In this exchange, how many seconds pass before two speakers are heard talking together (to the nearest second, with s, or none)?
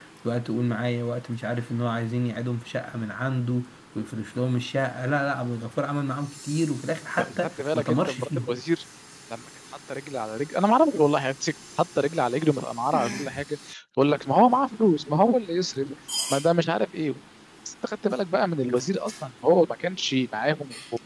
7 s